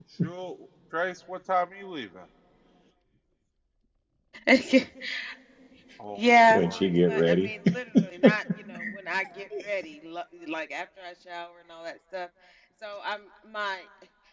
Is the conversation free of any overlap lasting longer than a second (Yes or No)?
No